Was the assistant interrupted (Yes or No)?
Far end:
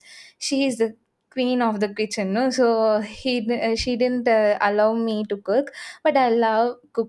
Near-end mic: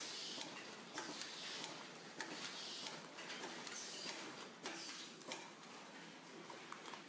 No